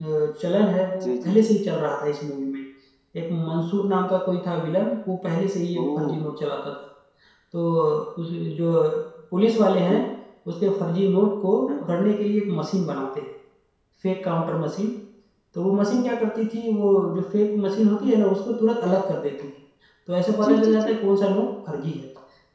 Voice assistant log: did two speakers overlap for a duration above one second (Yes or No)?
No